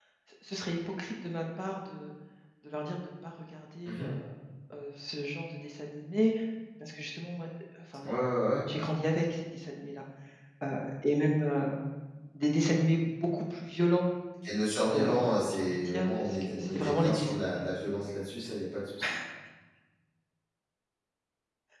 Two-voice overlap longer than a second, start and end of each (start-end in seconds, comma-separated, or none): 14.9-17.5